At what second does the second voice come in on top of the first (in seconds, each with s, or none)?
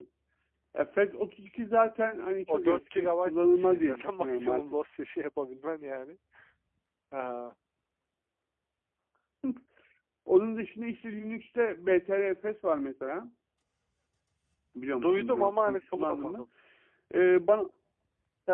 2.5 s